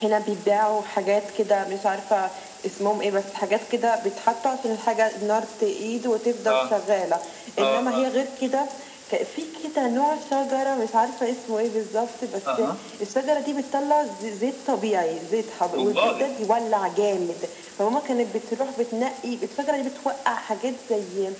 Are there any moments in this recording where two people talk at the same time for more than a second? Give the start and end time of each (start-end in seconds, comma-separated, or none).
none